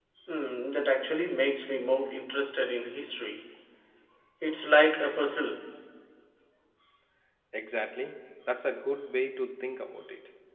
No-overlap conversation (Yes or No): Yes